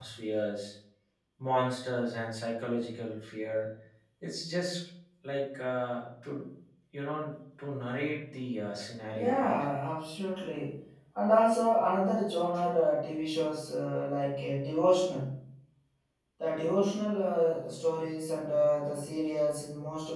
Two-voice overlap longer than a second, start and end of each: none

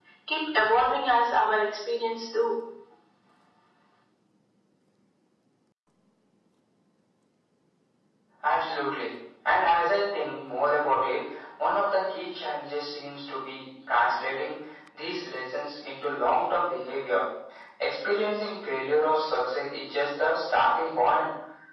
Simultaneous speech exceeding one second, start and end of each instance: none

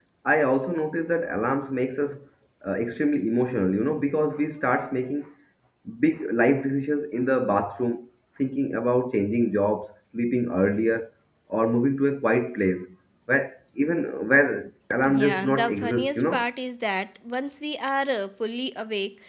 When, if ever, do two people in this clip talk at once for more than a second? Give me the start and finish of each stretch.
15.1-16.4

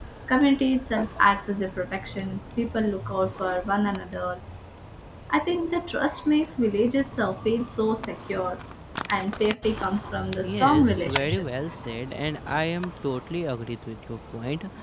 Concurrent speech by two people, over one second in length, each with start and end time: 10.4-11.7

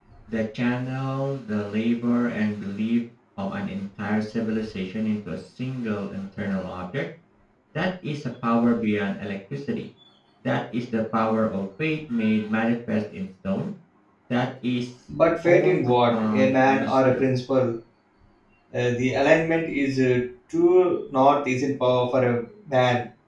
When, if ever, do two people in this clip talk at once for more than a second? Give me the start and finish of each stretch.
15.5-17.3

